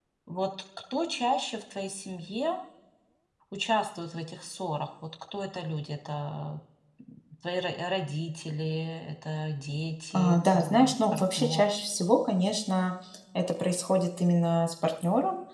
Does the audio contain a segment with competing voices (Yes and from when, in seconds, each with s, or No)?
Yes, from 10.1 s